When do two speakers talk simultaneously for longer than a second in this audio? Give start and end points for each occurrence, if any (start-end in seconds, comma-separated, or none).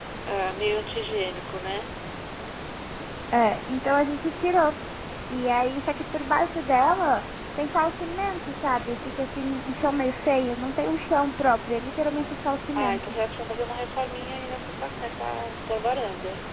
none